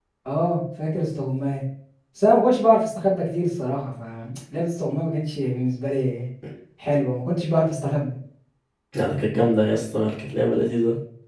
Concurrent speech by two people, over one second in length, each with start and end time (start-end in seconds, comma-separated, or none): none